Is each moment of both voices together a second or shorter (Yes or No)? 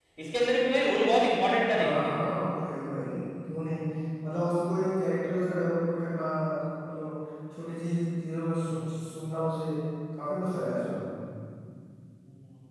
Yes